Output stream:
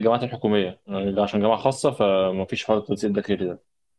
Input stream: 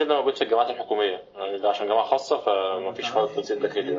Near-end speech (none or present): present